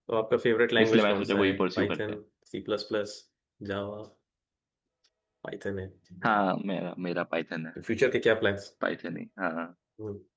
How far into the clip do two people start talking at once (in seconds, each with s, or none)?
0.8 s